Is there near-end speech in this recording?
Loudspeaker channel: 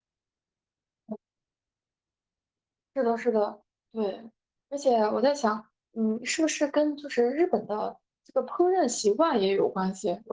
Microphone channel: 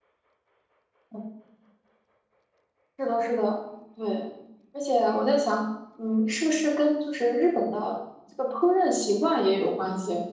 No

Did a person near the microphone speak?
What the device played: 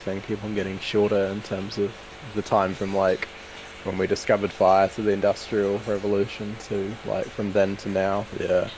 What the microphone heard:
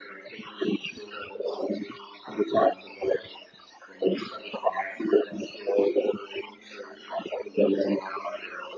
No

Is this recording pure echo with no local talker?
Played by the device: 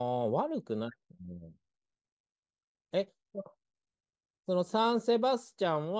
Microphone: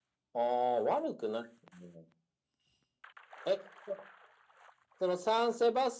Yes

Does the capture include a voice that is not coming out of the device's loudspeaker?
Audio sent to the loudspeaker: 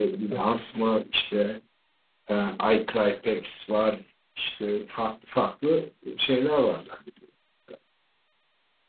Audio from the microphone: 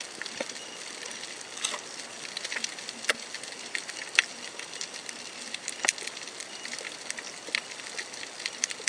No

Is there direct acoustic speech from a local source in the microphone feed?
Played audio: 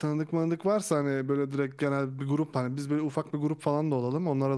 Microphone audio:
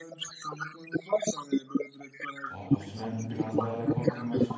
Yes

